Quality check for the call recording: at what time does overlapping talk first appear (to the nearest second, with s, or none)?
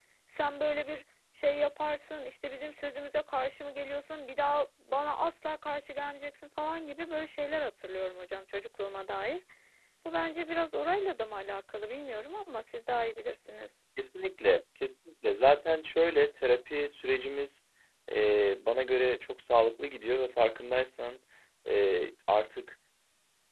none